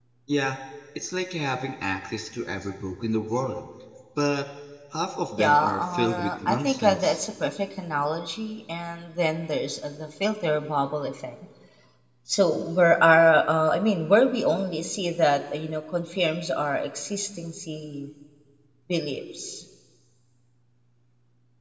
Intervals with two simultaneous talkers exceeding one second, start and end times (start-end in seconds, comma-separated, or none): 5.4-7.2